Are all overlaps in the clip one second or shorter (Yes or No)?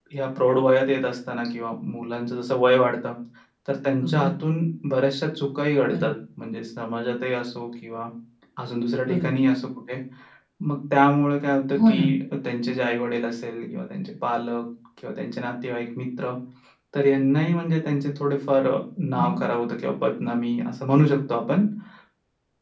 Yes